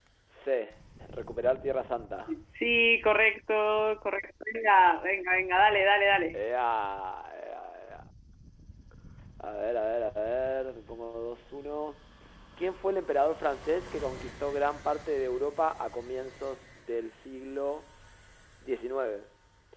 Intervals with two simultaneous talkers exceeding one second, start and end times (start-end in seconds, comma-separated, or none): none